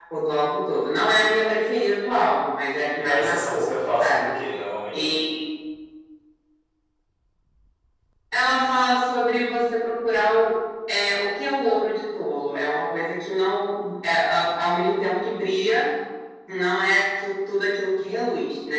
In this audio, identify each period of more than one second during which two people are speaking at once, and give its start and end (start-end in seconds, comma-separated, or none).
3.0-4.3